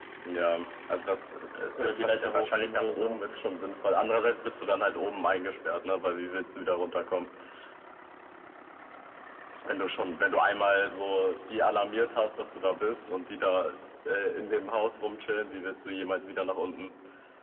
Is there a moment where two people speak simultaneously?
Yes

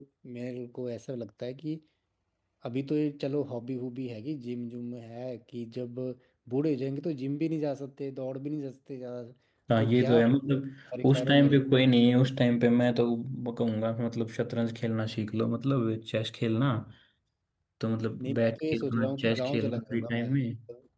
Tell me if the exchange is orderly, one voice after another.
No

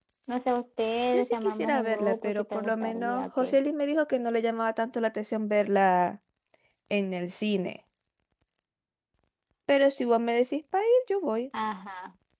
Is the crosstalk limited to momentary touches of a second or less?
No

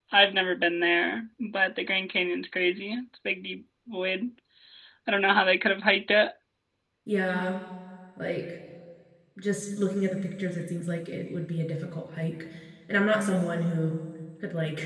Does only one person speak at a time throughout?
Yes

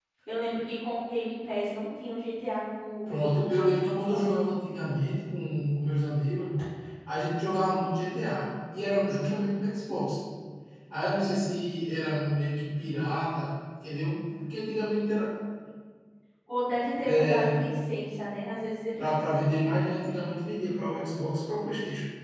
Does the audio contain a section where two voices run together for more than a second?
Yes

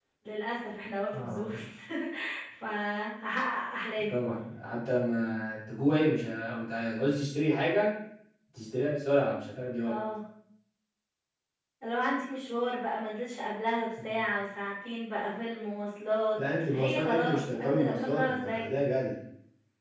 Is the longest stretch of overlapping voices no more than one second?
No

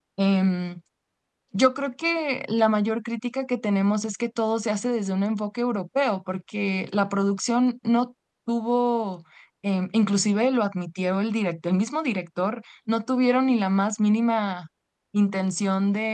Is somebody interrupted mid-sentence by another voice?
No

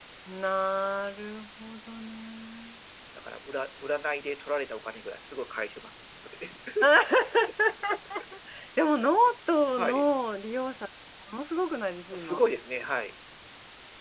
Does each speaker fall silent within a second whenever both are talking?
Yes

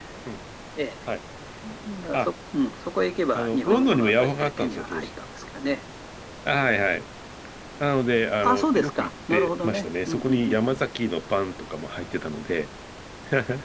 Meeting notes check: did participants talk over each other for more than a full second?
Yes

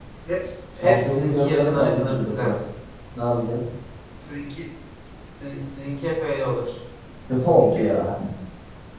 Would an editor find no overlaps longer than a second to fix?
No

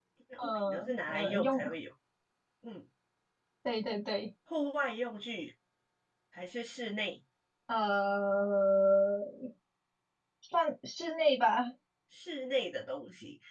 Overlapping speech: Yes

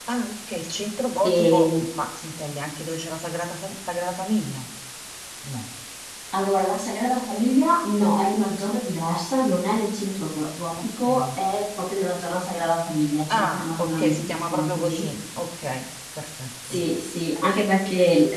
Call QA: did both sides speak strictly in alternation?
No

